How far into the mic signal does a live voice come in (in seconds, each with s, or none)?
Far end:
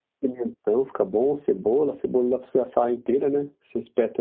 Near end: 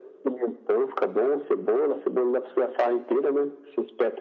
none